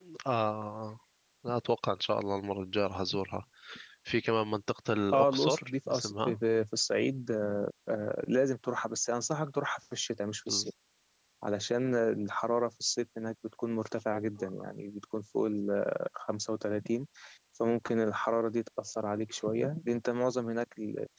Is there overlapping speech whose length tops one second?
Yes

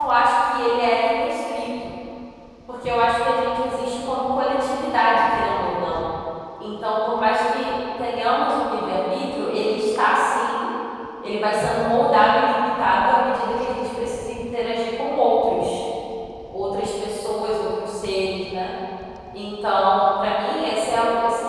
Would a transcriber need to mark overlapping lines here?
No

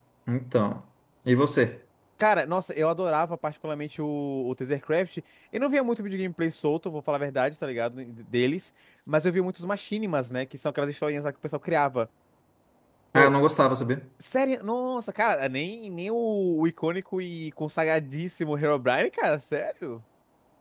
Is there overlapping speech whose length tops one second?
No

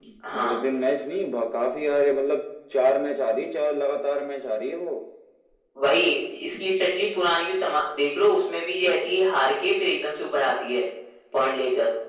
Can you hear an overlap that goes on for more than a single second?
No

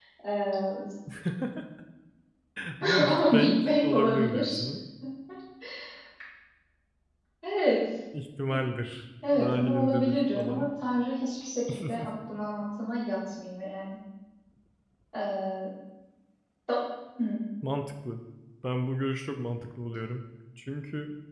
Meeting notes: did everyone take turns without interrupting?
No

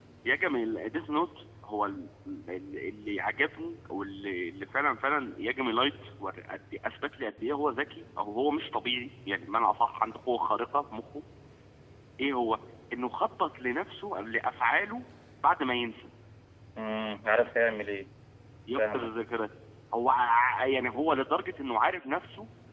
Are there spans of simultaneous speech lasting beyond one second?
No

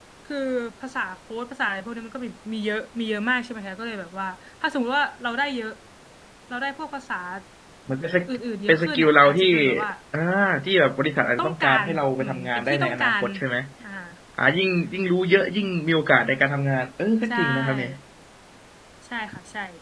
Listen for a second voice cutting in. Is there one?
Yes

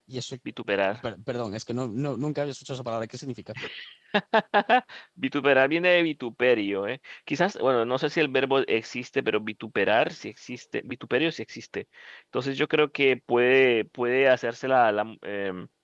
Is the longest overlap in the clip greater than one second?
No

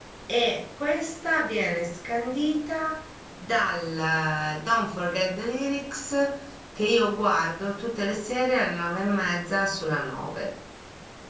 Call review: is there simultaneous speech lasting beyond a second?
No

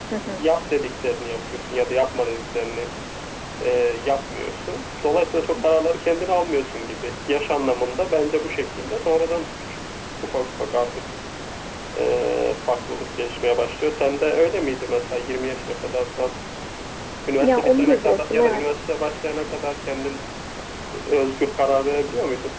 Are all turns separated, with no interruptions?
No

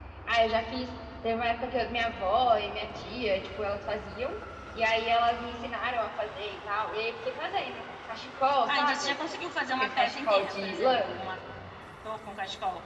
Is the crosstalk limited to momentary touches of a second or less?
No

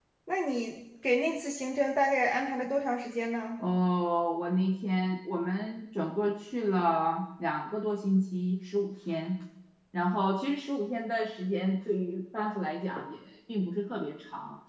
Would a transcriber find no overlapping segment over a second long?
Yes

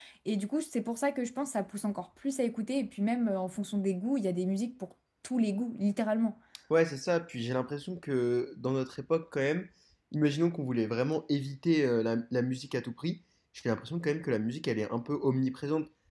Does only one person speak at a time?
Yes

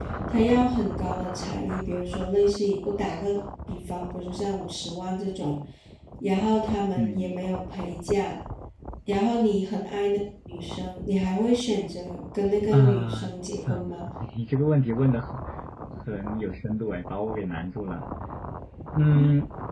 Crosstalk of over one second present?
Yes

